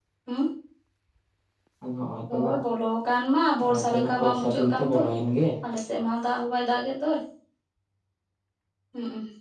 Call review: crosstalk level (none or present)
present